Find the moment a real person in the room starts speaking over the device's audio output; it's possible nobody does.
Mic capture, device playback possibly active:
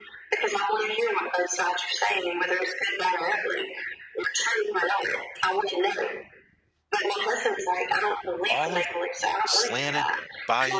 8.5 s

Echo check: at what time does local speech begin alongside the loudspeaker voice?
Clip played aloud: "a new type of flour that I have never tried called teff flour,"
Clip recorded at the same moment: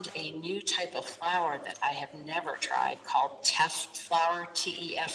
none

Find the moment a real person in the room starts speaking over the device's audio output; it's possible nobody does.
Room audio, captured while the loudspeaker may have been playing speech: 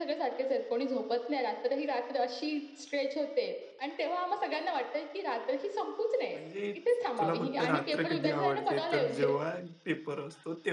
6.3 s

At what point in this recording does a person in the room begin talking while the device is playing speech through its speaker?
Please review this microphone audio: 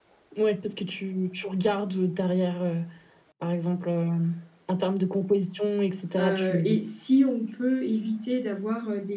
6.2 s

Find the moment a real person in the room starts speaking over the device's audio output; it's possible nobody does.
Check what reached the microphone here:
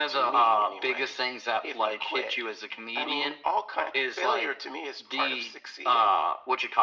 none

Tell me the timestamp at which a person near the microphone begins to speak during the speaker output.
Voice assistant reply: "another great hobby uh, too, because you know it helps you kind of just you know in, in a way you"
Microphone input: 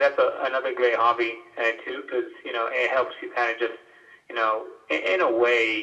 none

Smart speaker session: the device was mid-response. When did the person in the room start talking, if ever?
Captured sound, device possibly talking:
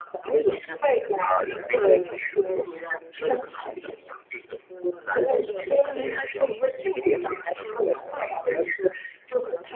none

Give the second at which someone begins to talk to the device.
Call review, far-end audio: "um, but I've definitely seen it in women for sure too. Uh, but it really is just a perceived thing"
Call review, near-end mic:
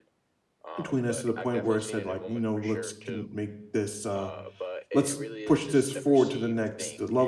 0.8 s

